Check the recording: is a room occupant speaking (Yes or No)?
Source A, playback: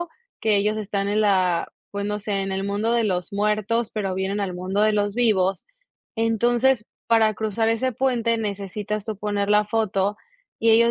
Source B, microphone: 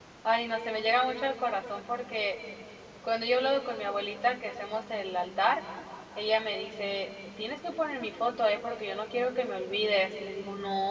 Yes